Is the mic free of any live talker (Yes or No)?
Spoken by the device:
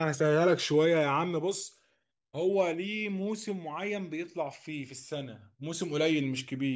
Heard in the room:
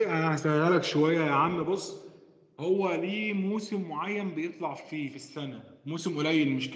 Yes